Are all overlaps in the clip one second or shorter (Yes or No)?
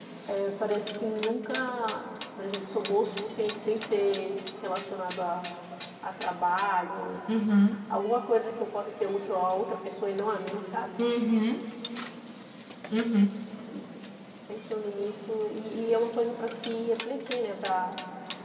Yes